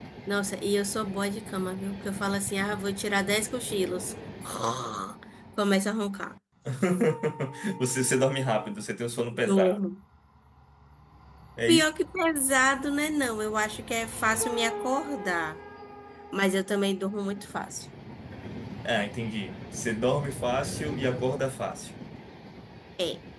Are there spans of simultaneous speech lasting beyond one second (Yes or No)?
No